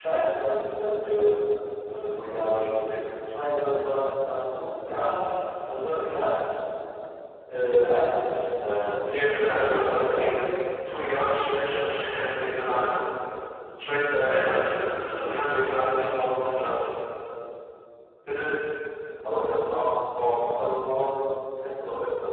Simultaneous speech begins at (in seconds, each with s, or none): 9.0 s